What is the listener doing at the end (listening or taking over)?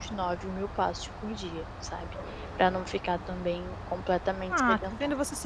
taking over